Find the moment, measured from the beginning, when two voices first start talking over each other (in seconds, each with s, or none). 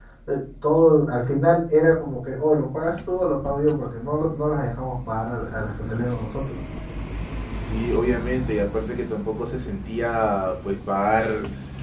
none